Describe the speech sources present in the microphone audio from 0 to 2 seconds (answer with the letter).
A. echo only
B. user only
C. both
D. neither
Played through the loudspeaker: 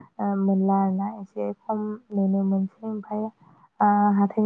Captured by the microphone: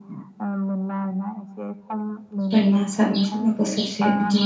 A